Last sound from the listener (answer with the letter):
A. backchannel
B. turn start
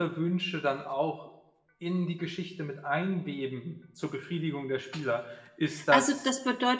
B